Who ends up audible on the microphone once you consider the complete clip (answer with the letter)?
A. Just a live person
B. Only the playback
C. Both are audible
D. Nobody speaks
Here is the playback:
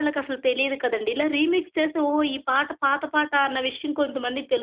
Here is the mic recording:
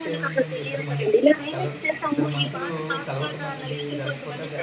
C